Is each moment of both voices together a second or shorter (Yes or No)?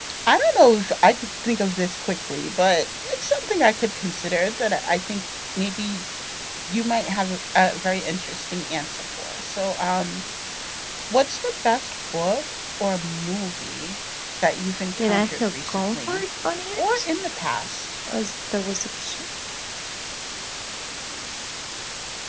No